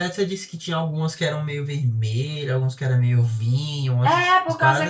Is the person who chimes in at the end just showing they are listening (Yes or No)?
No